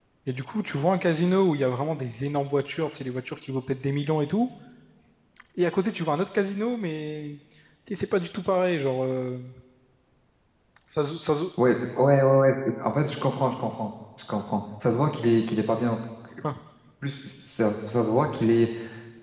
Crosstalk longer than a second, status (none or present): none